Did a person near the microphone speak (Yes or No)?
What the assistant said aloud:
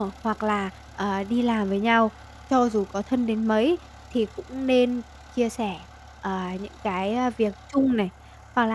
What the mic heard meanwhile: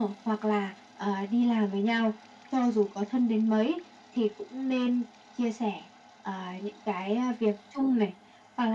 No